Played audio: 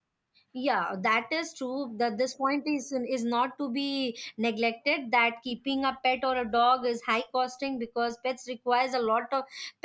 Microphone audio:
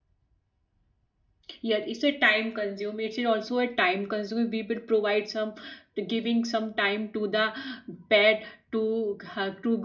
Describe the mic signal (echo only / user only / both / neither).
user only